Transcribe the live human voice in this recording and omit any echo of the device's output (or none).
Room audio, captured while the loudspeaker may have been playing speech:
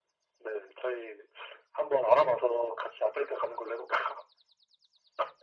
none